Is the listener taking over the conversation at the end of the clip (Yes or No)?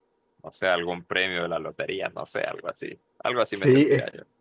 Yes